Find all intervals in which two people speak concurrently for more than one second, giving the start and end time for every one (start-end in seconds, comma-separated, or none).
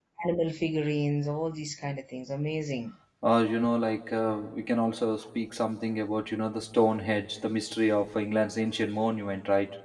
none